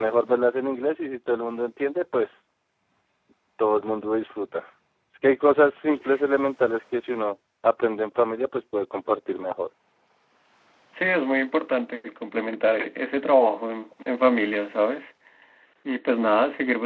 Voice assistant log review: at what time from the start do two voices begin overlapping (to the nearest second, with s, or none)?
none